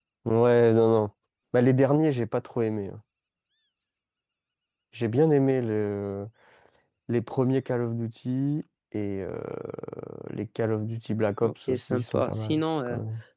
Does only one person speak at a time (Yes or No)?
No